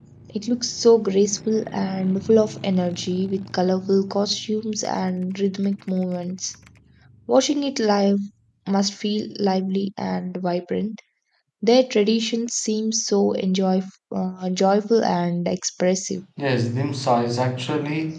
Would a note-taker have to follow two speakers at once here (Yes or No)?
No